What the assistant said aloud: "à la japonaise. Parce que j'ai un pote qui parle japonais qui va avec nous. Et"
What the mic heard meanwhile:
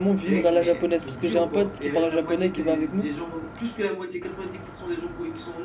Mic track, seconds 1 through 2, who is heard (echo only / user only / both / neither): both